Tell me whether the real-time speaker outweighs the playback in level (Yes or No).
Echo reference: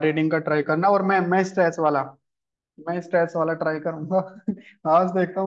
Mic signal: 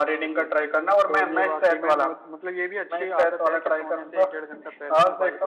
No